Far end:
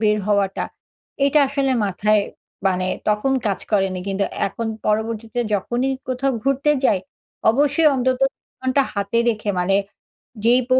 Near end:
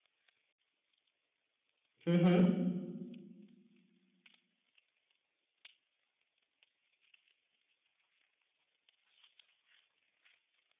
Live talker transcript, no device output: হুম, হুম।

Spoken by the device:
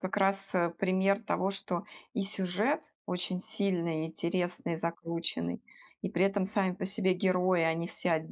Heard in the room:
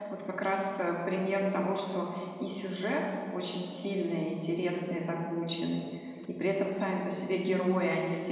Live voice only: none

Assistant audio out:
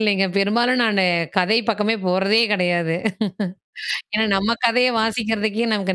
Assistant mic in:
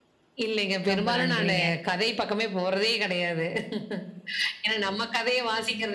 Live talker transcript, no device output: ரொம்ப நன்றிங்க.

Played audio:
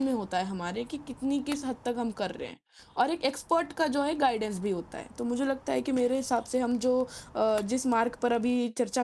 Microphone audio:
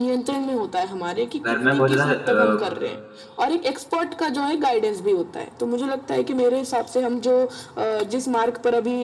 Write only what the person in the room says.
घर में बहुत ज़्यादा अ,

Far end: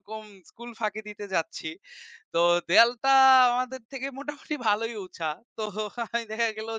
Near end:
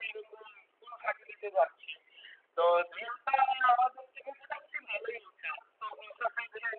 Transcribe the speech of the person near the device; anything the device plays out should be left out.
none

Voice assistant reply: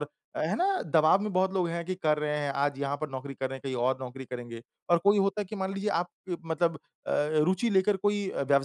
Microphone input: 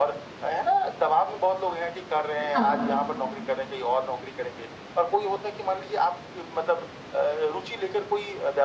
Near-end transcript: अ, हाँ।

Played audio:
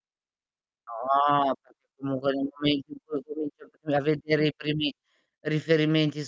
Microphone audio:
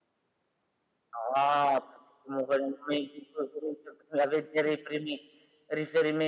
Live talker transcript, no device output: none

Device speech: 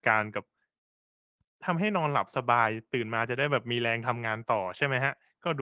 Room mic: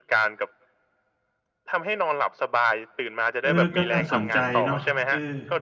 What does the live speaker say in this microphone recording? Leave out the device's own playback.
เออ ก็น่าสนใจเนาะ เออ

